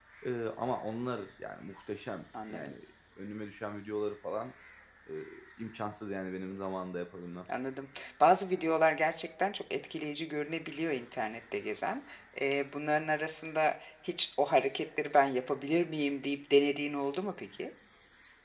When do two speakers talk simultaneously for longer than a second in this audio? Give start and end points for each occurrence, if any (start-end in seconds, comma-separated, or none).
none